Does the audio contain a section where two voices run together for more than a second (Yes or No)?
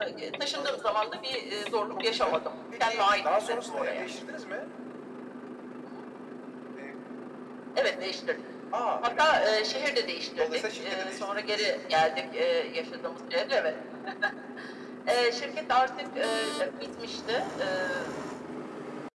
Yes